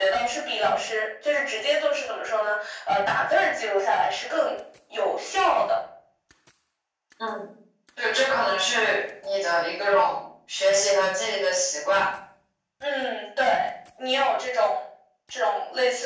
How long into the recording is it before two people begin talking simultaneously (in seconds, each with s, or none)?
none